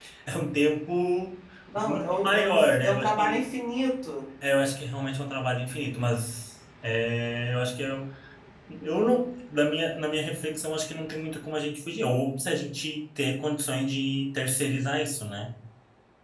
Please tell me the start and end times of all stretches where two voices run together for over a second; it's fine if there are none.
1.8-3.4

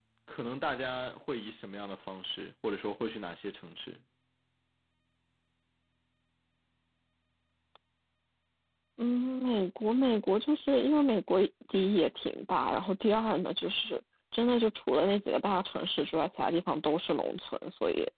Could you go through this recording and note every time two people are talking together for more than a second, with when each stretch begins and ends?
none

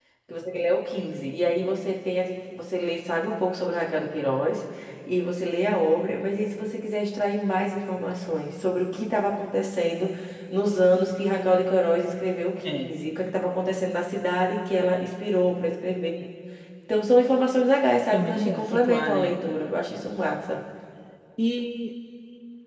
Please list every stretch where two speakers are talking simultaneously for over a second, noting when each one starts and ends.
18.1-19.3

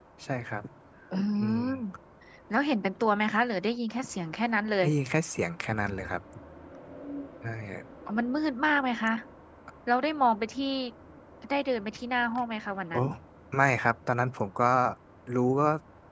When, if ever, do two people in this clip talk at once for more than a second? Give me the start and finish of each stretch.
none

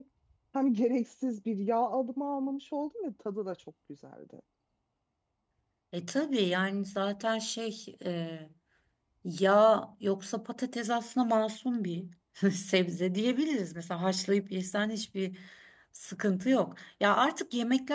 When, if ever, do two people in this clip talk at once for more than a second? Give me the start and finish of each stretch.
none

